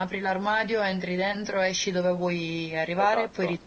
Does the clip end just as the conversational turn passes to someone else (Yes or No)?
Yes